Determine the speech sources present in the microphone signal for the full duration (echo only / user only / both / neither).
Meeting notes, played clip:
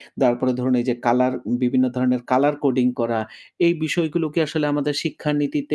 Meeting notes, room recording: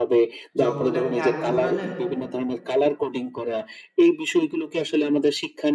both